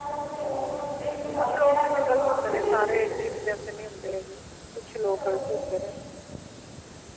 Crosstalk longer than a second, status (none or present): present